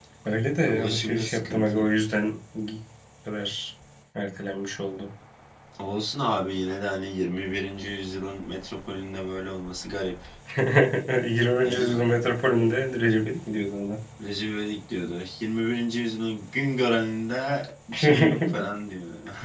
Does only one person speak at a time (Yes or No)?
No